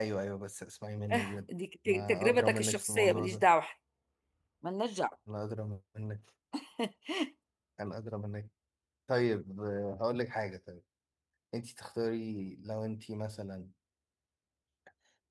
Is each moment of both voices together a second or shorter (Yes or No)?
No